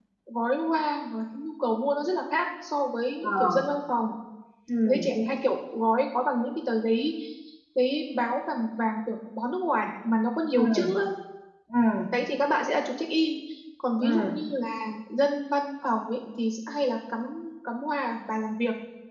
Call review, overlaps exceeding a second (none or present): none